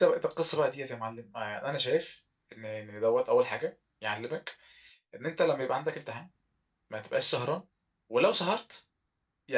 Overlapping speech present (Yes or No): No